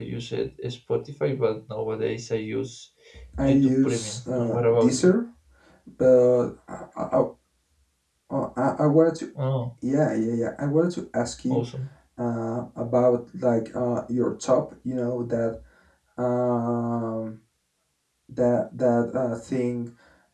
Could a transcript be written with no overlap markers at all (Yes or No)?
No